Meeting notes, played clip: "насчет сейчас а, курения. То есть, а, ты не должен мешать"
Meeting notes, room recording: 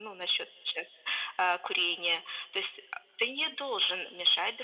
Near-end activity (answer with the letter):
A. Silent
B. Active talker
A